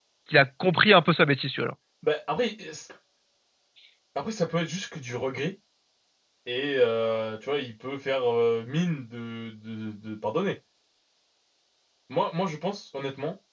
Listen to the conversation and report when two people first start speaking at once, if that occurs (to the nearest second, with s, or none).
none